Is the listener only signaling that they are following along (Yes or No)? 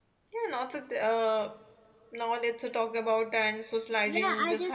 No